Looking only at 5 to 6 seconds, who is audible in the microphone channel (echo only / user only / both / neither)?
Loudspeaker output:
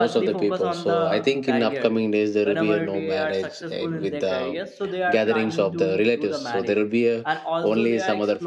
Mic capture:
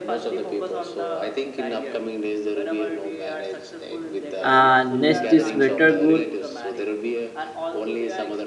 both